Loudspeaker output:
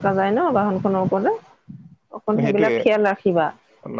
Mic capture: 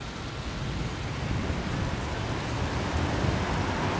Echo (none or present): none